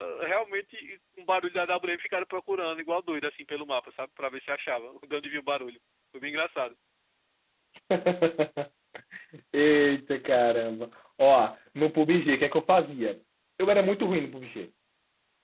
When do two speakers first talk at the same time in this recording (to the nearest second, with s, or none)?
none